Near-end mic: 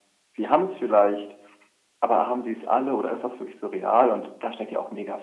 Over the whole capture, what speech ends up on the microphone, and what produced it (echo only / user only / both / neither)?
echo only